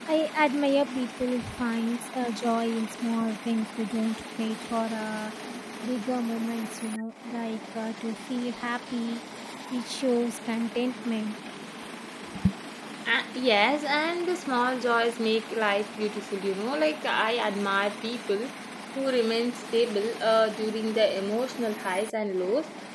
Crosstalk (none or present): none